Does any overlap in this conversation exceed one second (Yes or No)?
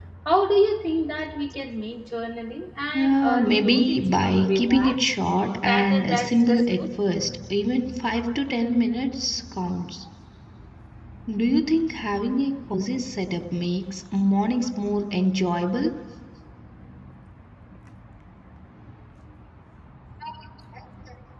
Yes